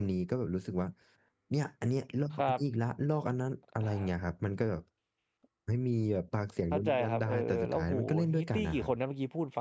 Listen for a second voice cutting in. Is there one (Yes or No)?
Yes